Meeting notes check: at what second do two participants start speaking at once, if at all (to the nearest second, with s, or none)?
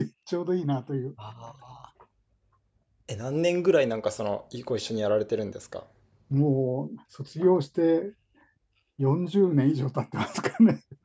none